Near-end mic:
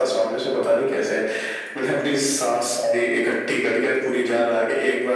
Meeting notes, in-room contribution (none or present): none